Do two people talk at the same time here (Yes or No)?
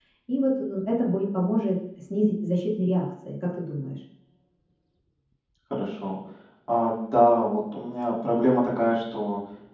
No